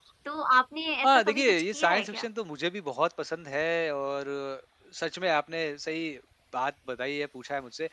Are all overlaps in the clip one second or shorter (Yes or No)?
No